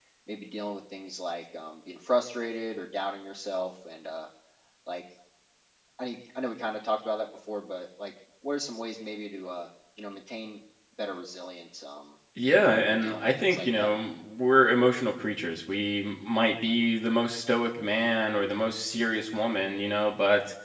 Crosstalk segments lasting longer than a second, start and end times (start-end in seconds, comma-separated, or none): 12.6-13.9